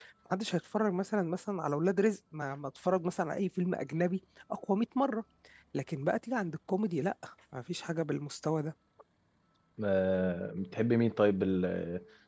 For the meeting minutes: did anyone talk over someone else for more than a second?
No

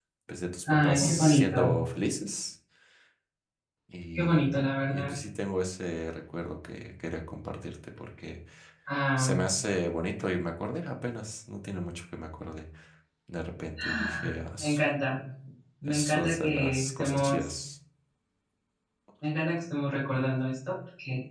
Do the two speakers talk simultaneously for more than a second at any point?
Yes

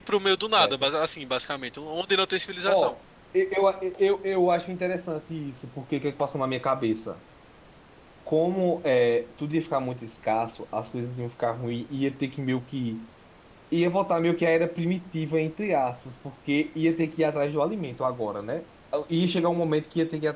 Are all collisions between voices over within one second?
Yes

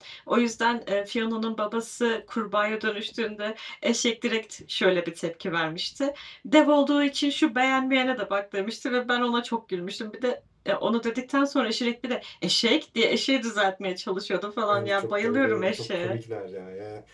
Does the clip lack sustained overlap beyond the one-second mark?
No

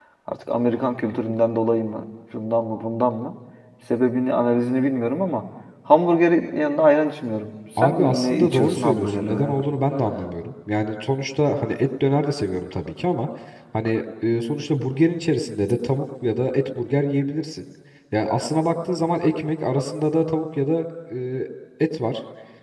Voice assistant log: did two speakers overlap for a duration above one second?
Yes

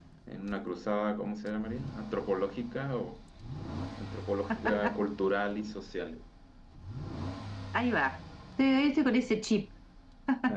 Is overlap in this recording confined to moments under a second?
Yes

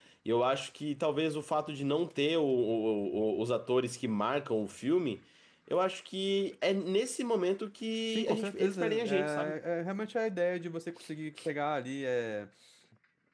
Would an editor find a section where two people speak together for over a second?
Yes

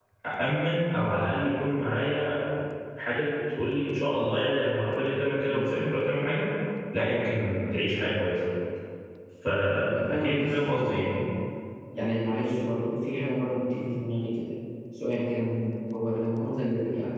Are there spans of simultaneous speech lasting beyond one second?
Yes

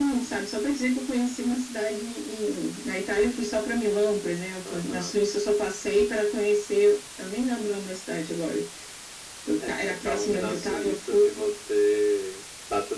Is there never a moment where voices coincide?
No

